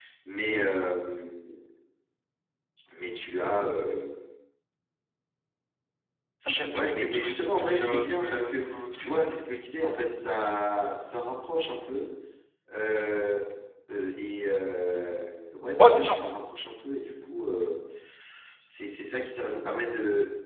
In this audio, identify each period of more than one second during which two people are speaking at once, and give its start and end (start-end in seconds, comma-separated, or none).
6.8-9.3